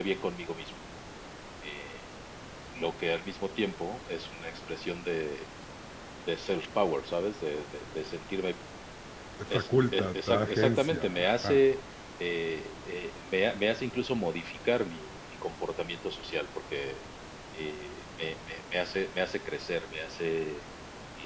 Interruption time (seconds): 9.5 s

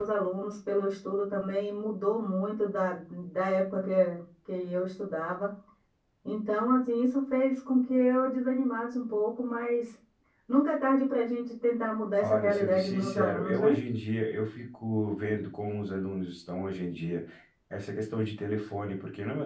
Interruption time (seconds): 12.2 s

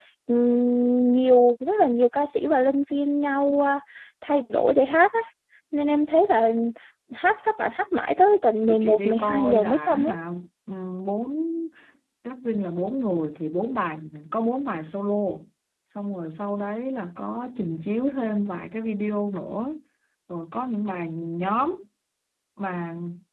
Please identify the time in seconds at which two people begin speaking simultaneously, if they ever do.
8.7 s

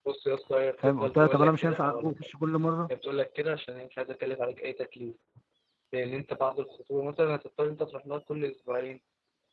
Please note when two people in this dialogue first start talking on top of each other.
0.8 s

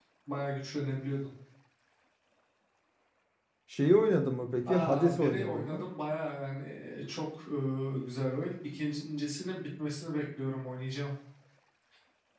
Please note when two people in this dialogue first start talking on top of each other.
4.6 s

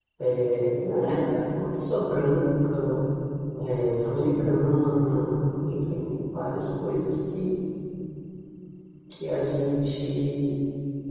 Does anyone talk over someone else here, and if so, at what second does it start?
none

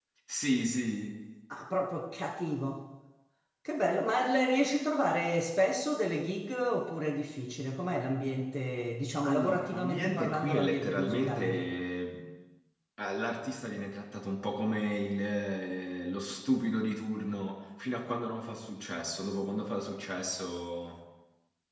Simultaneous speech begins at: 9.2 s

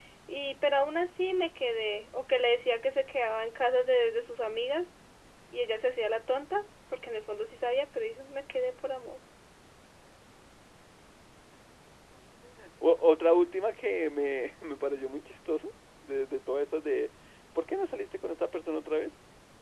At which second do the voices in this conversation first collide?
none

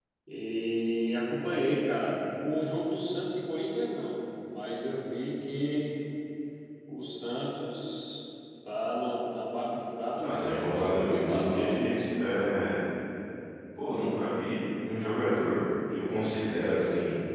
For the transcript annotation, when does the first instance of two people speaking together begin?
10.2 s

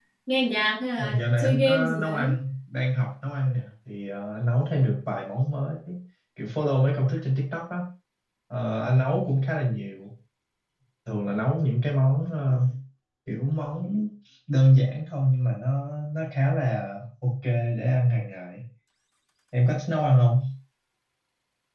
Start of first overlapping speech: 1.0 s

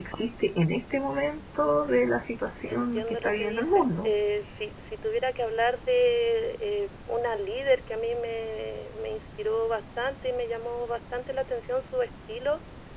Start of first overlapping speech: 2.6 s

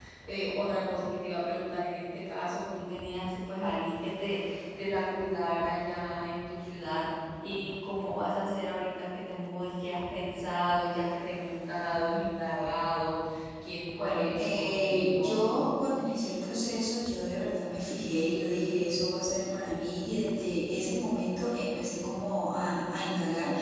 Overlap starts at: 14.0 s

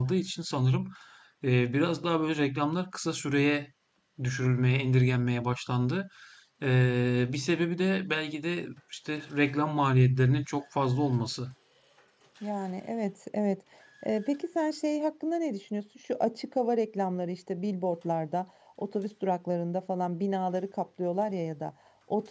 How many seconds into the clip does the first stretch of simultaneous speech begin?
none

